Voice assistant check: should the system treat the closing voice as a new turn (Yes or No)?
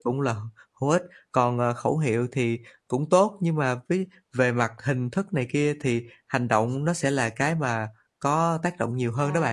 Yes